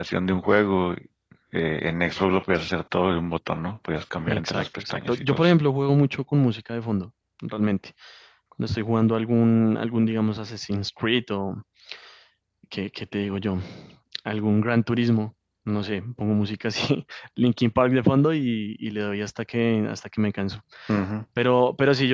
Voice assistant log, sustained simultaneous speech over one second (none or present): present